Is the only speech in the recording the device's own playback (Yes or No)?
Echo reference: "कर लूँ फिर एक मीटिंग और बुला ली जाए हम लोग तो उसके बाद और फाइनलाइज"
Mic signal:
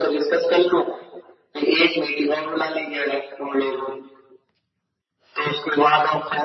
Yes